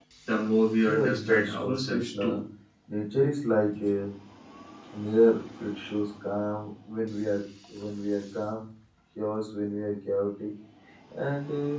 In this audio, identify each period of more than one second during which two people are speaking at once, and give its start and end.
0.9-2.3

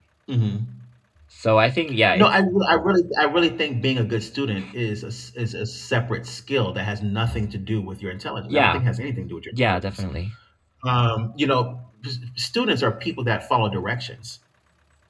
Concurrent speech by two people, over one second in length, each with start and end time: none

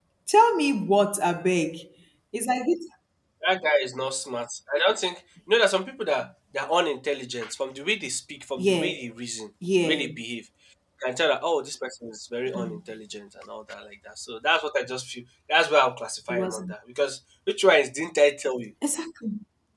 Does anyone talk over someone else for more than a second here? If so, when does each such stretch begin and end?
none

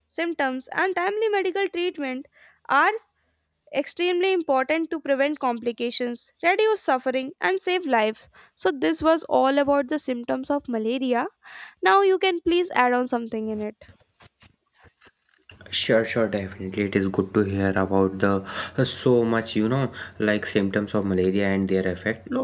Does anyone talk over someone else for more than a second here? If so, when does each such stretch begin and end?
none

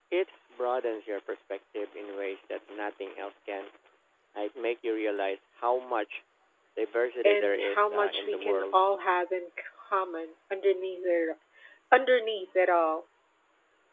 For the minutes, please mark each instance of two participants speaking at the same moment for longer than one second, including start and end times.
7.2-8.8

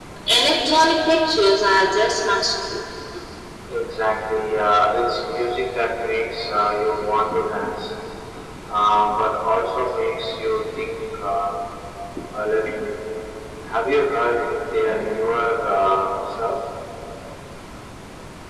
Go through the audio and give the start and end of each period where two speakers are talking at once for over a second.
none

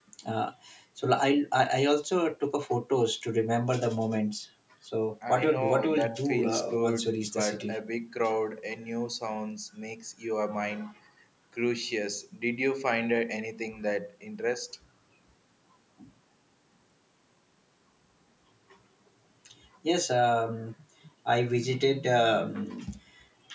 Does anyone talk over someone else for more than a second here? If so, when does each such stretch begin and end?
5.3-7.8

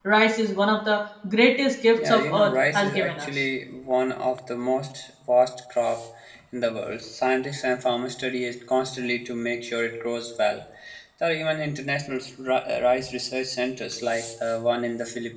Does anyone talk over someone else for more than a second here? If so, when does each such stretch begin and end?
2.0-3.4

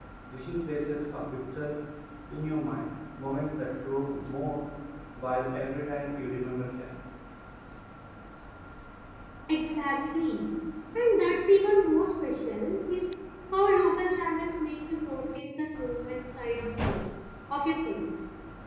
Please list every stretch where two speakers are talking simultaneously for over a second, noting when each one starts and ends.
none

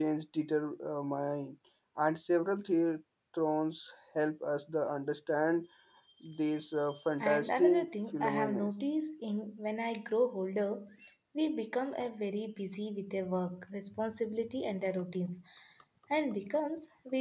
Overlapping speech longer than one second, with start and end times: 7.2-8.7

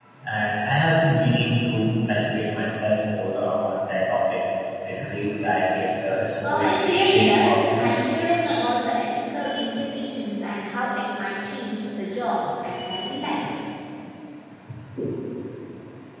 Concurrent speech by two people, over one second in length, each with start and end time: 6.4-8.6

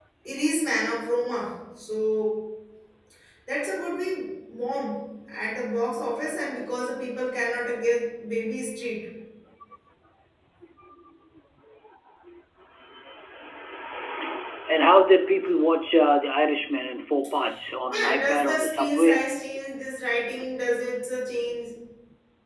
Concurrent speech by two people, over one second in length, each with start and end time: 17.9-19.3

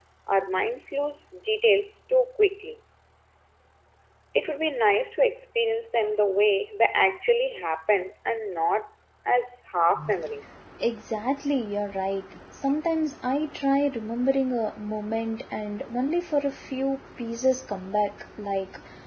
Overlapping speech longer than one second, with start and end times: none

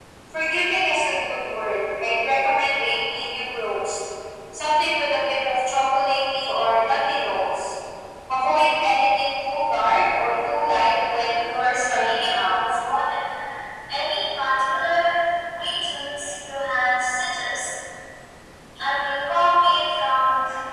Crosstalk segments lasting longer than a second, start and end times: 11.2-12.6

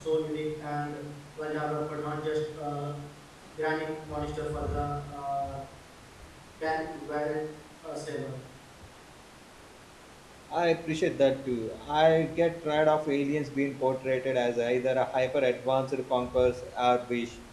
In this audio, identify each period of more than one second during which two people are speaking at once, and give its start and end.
none

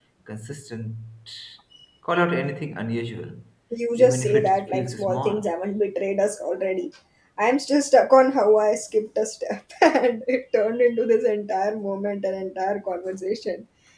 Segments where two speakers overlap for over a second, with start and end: 4.0-5.5

